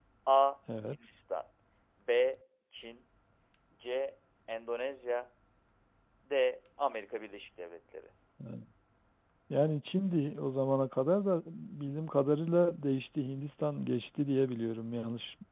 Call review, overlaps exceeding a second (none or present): none